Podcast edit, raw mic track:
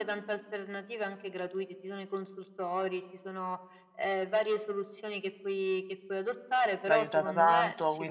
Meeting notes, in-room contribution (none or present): present